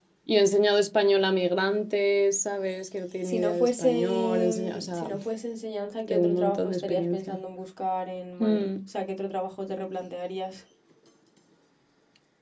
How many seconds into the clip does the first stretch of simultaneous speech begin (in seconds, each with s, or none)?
3.2 s